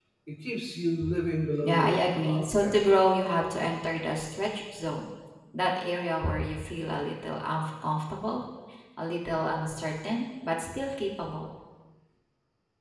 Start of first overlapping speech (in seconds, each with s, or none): 1.6 s